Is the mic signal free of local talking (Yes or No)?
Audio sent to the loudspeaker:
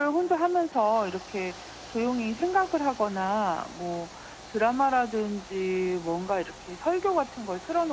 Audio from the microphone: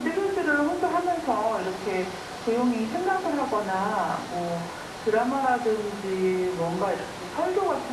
Yes